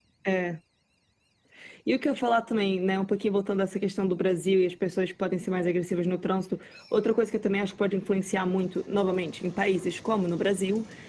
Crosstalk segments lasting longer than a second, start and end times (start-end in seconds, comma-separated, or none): none